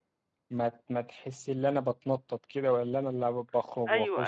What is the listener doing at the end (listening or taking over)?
taking over